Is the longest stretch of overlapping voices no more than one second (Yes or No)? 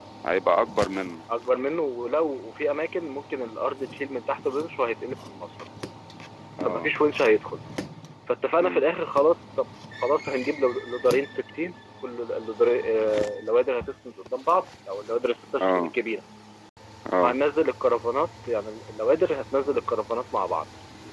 Yes